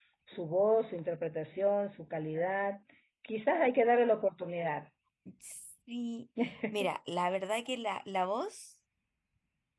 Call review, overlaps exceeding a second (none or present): none